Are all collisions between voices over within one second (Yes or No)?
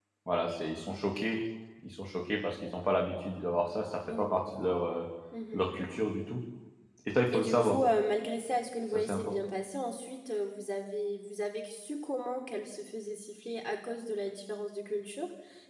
Yes